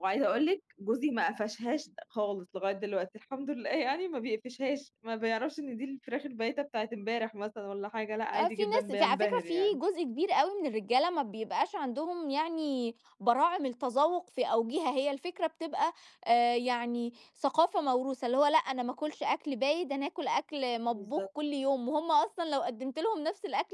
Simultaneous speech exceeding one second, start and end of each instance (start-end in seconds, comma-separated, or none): 8.3-9.8